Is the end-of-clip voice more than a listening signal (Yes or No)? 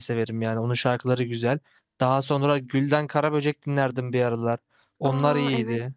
Yes